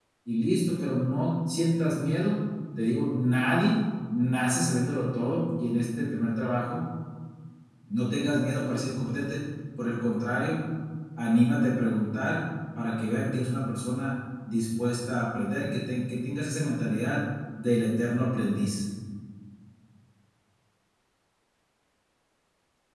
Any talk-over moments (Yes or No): No